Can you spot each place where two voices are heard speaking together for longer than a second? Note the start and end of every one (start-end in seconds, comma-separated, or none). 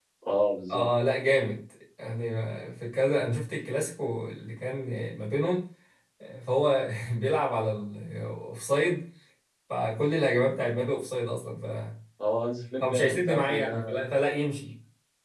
12.8-14.0